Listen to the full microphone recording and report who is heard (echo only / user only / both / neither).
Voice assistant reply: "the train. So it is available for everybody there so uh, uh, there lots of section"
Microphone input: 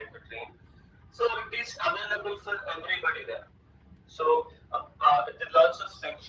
echo only